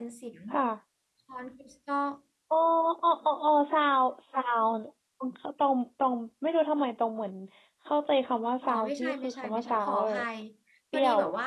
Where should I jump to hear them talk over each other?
9 s

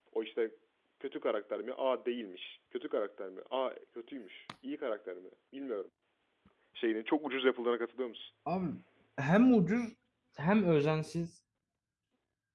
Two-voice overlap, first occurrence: none

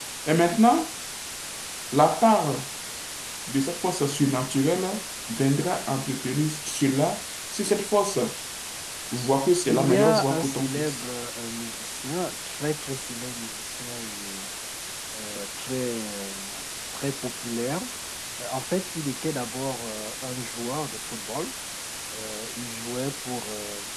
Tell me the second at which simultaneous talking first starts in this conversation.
10 s

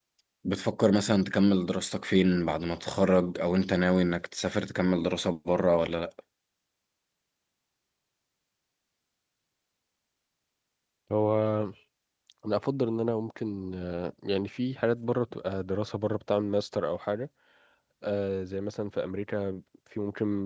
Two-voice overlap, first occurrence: none

